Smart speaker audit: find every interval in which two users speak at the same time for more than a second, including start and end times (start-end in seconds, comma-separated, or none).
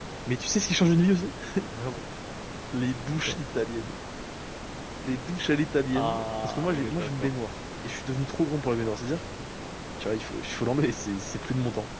5.9-7.3